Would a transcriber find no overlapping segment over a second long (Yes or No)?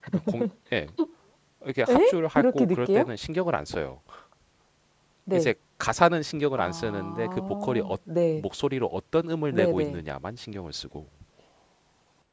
No